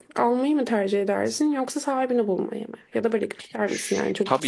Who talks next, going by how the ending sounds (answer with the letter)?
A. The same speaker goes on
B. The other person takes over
B